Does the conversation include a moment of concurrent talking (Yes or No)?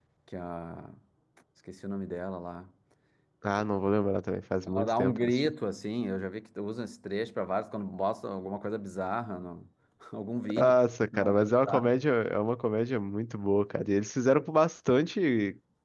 Yes